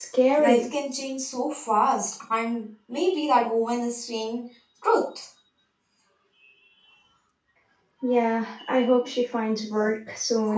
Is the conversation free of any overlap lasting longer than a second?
Yes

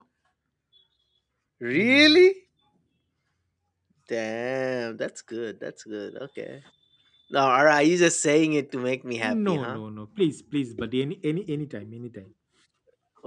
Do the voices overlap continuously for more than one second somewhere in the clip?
No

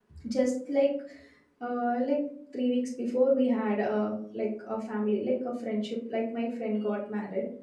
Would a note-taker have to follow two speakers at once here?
No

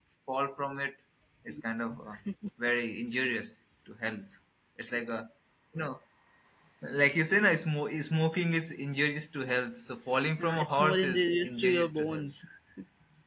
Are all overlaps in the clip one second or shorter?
No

